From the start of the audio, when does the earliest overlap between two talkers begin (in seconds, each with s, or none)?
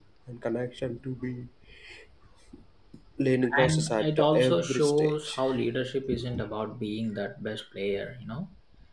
3.6 s